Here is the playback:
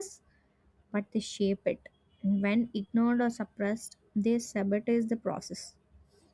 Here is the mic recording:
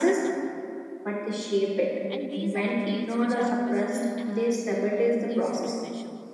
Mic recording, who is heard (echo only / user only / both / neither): both